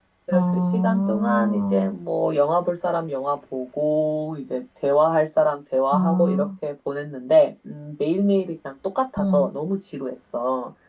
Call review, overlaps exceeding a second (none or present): present